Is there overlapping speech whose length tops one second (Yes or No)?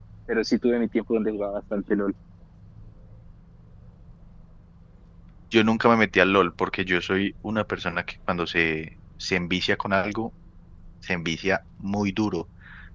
No